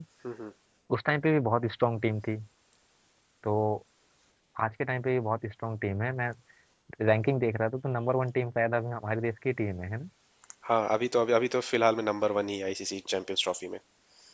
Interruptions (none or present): none